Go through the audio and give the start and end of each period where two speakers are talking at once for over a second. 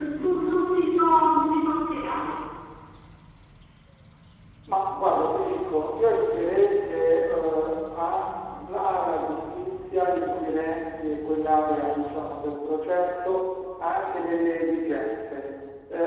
none

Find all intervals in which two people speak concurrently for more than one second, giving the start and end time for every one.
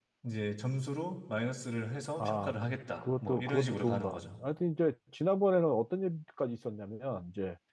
2.2-4.3

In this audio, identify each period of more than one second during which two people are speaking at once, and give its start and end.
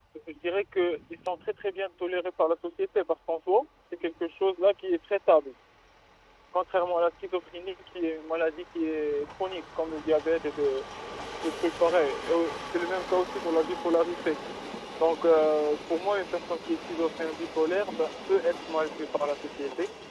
none

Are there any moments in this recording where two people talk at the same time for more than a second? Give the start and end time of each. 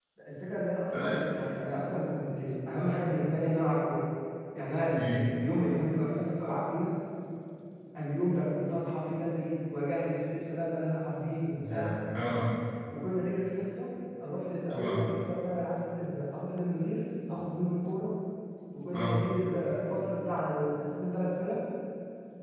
none

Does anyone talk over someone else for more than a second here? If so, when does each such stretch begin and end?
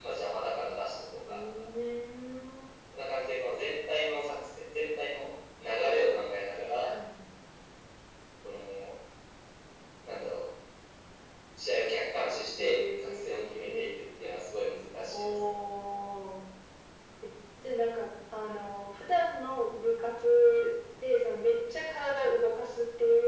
12.6-13.9

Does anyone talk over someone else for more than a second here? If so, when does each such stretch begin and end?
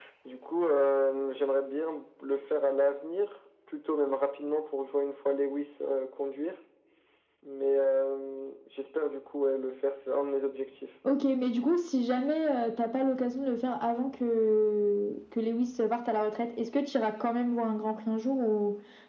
none

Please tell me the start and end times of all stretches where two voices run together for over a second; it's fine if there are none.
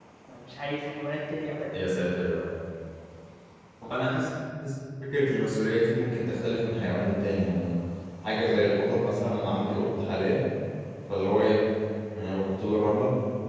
none

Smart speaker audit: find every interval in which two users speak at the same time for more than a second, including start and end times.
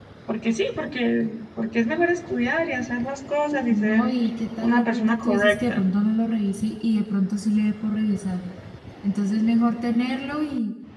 4.6-5.8

